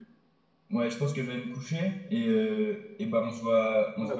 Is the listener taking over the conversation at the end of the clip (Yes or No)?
Yes